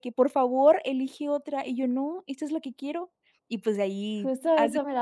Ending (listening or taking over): taking over